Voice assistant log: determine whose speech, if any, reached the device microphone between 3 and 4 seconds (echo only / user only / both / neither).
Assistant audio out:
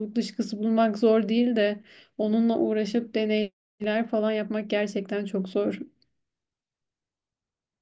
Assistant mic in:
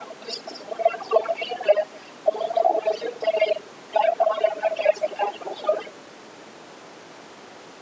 echo only